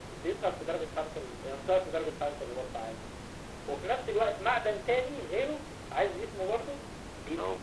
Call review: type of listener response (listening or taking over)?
listening